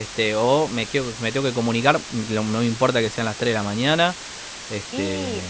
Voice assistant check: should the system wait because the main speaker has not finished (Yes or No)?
No